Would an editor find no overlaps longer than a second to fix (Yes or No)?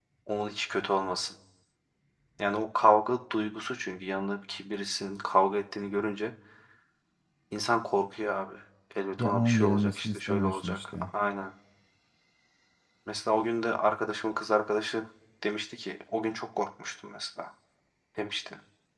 No